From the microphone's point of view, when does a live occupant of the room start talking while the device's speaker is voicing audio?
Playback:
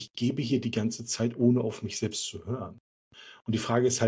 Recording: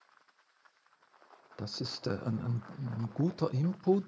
1.6 s

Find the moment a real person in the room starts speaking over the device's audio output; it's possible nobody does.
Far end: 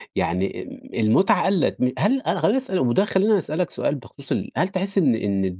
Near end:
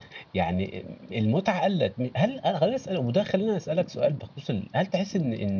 none

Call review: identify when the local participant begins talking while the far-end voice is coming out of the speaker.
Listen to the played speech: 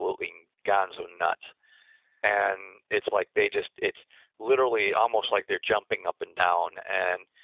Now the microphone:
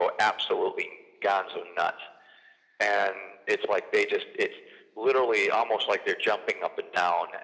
none

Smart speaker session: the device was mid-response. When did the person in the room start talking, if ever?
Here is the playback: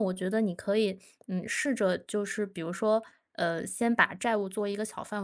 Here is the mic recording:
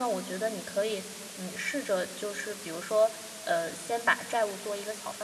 none

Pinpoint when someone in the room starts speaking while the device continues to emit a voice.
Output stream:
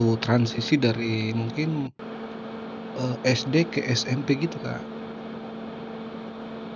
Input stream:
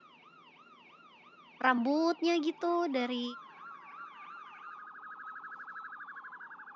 1.6 s

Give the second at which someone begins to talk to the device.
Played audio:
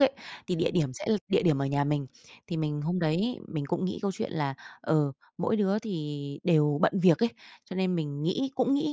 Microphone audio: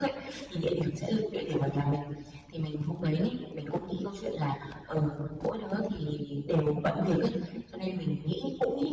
none

